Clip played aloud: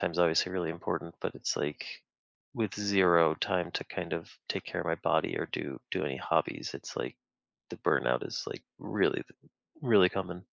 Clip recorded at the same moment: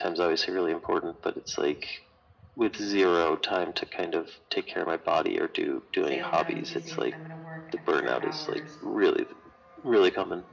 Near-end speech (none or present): present